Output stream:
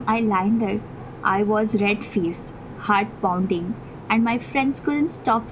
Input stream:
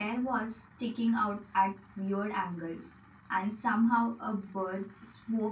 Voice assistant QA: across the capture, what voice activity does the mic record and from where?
user only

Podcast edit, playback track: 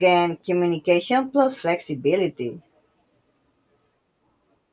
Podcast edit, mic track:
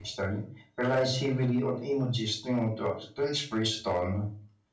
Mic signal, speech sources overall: user only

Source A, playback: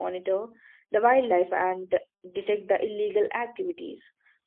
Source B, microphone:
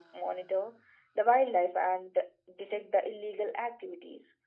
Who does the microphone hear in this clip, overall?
echo only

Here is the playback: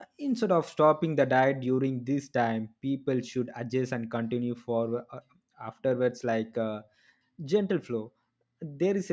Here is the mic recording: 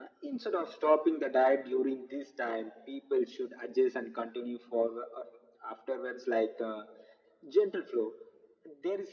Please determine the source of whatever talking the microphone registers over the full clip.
echo only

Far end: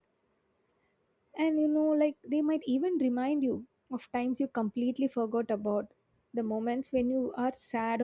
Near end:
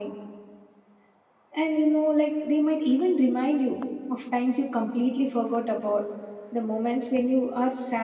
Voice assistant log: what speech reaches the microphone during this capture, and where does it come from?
echo only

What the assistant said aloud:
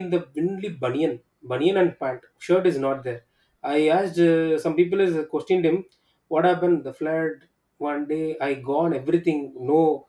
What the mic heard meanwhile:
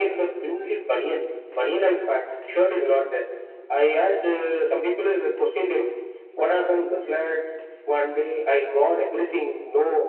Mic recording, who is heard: echo only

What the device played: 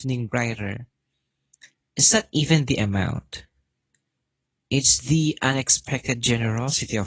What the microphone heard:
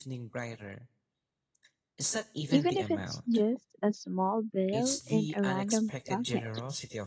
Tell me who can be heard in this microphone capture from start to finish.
both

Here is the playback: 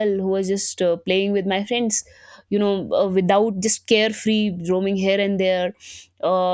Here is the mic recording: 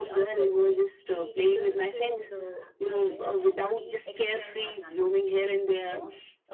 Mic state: both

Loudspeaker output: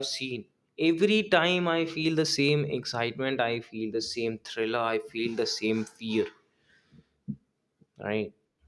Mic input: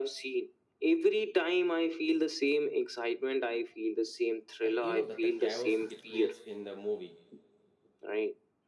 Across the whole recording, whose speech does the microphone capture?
both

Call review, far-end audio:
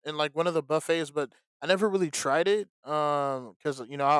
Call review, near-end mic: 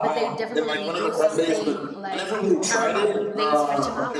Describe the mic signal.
both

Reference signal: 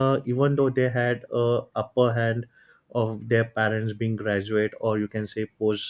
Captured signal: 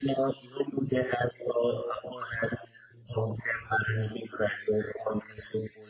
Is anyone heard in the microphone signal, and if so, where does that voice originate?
echo only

